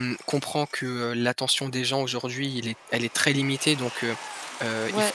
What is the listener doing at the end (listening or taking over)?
listening